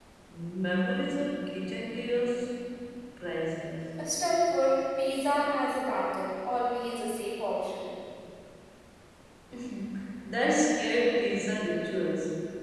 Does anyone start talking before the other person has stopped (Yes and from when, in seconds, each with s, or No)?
No